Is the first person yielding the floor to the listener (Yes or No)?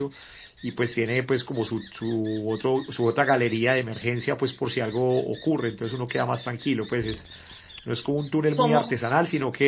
No